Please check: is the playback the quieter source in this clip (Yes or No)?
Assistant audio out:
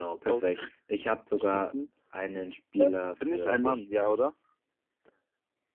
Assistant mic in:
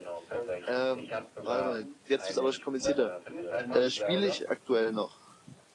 Yes